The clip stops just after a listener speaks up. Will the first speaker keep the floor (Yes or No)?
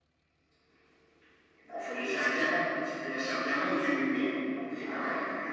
No